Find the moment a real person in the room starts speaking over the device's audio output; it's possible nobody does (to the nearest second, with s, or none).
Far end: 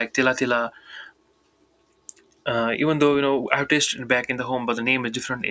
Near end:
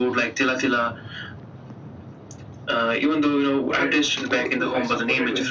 4 s